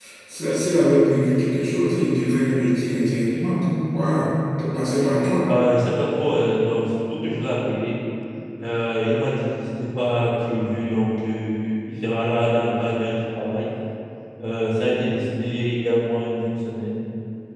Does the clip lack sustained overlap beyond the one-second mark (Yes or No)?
Yes